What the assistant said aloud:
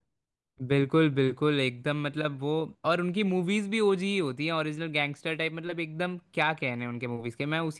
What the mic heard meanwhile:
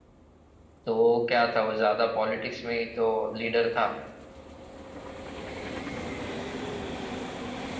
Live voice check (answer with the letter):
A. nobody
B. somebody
B